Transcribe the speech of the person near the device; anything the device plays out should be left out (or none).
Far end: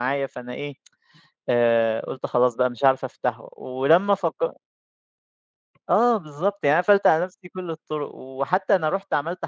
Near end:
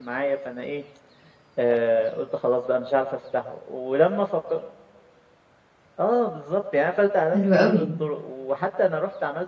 حلو أوي.